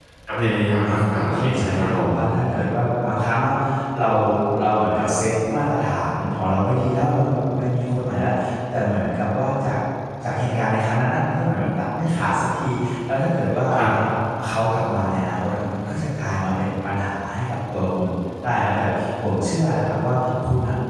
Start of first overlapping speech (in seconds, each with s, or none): 0.8 s